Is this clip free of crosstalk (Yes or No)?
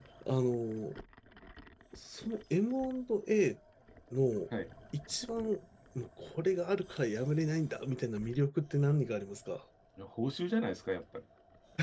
Yes